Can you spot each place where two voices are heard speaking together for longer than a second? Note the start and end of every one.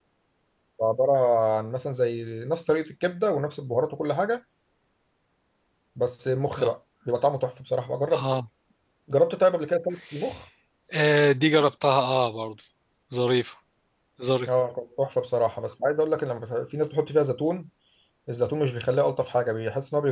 none

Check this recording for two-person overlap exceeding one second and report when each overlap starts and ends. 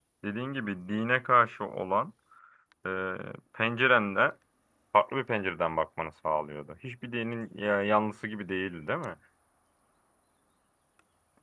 none

